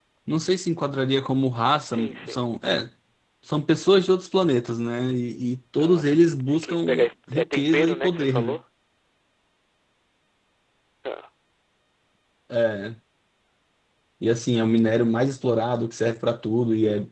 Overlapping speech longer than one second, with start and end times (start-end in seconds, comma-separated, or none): 5.8-8.6